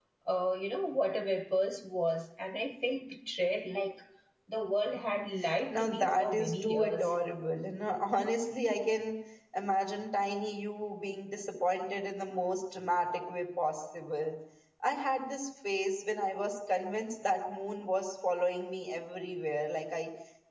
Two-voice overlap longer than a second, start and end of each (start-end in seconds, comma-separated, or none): 5.7-7.1